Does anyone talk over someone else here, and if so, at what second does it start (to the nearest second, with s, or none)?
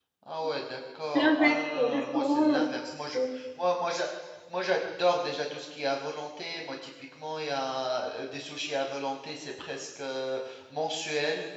1 s